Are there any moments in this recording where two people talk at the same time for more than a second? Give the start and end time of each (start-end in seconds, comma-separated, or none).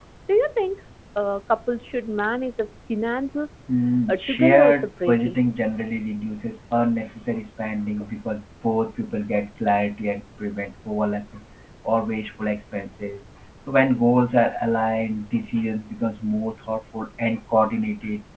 4.1-5.3